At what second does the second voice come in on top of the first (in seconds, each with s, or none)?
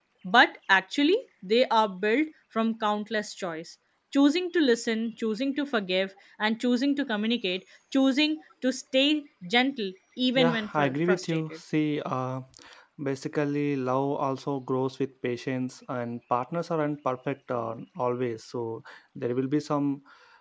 10.4 s